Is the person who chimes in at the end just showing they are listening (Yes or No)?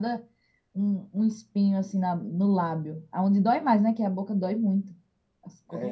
No